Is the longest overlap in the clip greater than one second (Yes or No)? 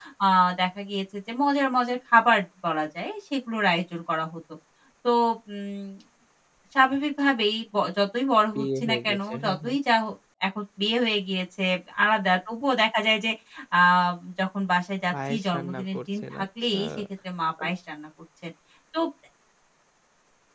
Yes